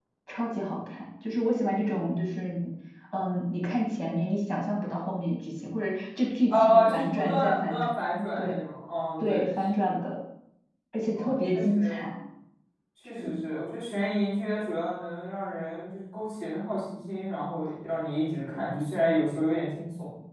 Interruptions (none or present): present